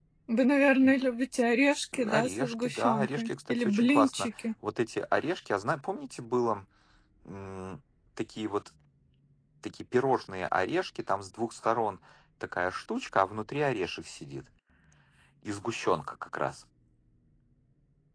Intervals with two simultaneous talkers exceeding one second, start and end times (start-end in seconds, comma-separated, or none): 2.1-4.3